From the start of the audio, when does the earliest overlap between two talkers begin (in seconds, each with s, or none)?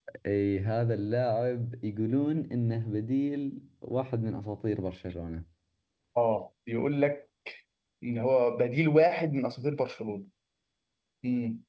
none